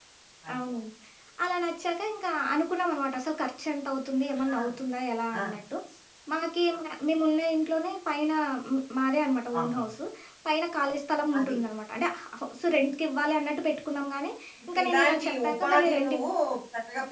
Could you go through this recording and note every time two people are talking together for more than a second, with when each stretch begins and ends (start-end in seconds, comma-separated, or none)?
14.7-16.3